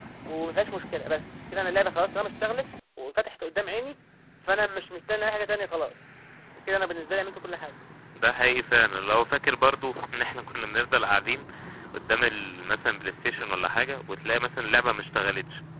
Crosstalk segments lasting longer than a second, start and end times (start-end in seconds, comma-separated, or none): none